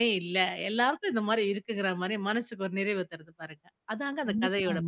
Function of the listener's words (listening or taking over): taking over